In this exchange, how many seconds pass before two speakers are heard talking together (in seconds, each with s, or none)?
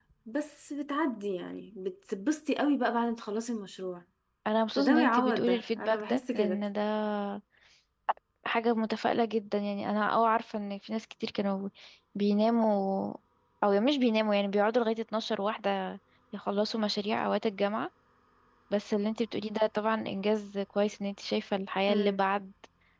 4.8 s